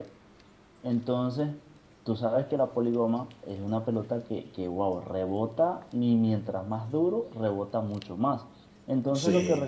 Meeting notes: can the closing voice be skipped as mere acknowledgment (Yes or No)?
Yes